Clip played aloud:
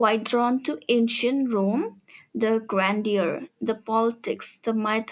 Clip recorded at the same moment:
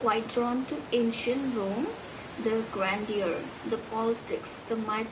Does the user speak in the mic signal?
No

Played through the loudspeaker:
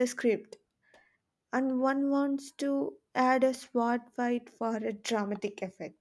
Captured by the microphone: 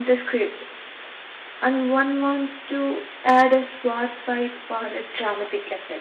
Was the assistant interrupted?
No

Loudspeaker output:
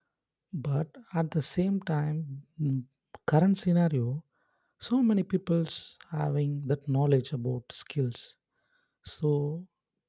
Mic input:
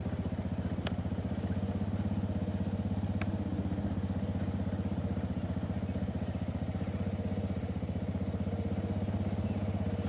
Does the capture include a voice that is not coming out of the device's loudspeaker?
No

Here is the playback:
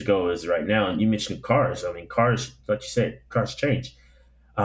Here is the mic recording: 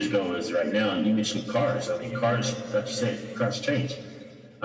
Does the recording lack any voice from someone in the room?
No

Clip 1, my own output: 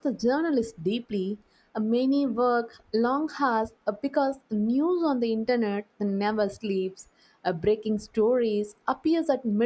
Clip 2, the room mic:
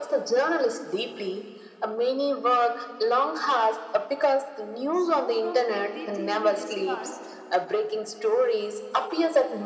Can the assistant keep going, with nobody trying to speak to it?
No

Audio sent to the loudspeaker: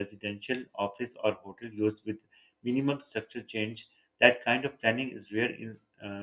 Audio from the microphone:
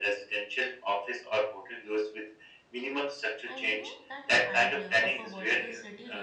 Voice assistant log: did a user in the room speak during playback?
Yes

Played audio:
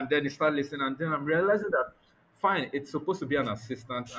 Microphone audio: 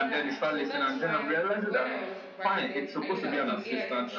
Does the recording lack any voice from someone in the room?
No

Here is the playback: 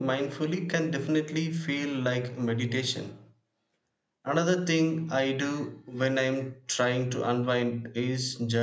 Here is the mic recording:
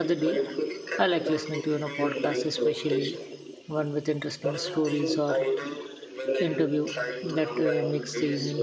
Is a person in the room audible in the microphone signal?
Yes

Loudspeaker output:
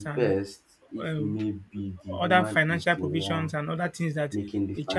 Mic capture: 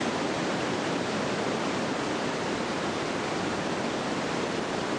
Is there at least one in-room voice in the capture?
No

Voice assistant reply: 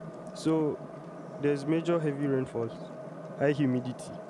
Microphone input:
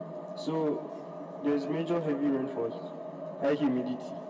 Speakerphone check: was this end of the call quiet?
Yes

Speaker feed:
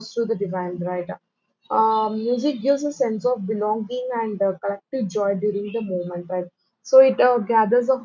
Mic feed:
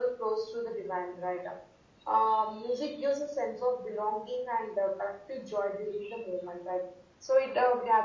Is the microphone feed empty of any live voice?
Yes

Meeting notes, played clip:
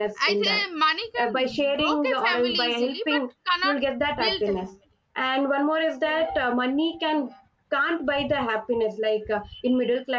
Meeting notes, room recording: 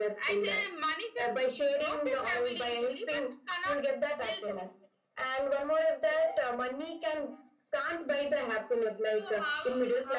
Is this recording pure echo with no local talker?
No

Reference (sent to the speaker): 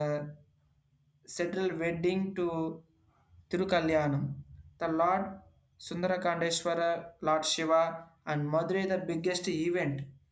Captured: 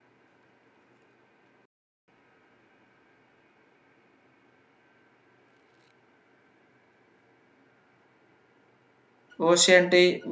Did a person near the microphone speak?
Yes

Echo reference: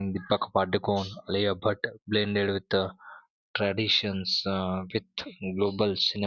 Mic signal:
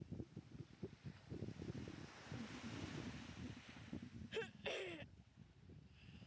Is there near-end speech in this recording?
No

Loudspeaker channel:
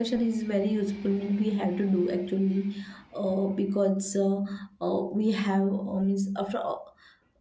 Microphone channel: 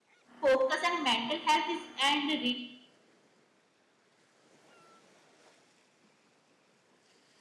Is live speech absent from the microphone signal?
No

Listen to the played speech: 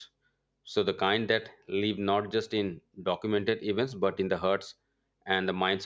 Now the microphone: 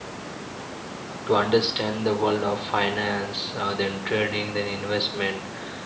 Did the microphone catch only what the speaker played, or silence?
No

